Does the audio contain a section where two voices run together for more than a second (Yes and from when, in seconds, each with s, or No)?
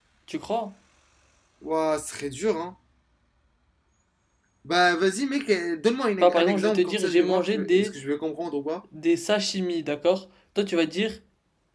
Yes, from 6.2 s